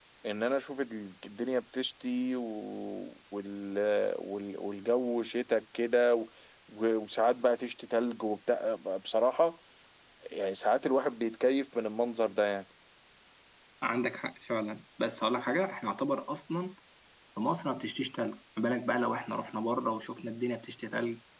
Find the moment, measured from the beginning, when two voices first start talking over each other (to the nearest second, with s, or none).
none